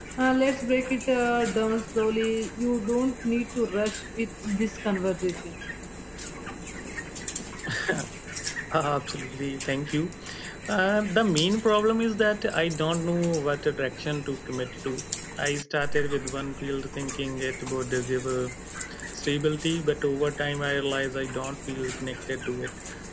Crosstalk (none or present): none